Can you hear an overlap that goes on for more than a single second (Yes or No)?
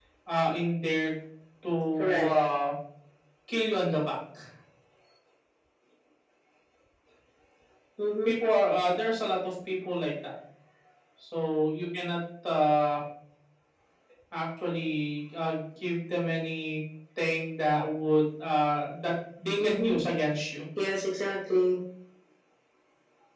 No